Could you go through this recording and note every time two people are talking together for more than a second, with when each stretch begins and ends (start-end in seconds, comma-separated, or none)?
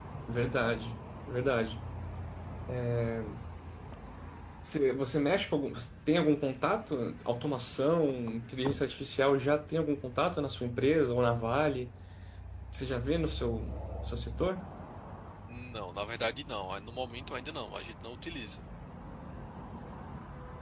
none